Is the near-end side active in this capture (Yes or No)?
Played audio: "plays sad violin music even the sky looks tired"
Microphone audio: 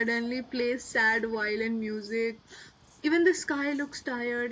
No